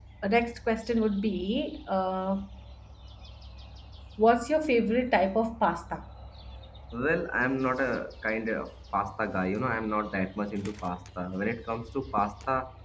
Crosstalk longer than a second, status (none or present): none